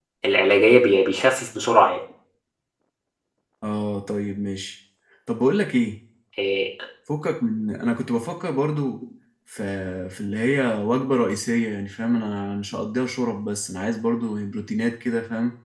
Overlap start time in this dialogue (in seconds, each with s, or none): none